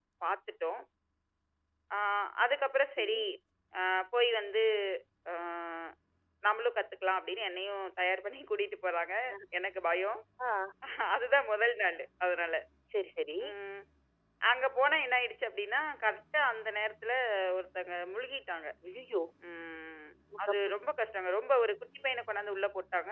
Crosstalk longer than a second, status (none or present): none